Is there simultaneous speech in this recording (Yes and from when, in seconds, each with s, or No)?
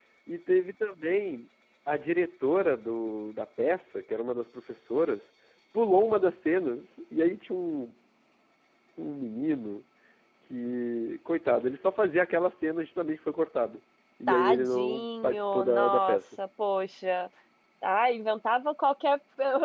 Yes, from 14.3 s